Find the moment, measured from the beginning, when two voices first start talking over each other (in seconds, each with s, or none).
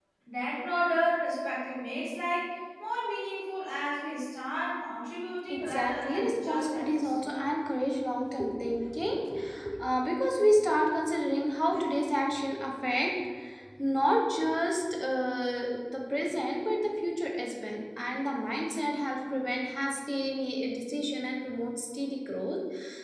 5.5 s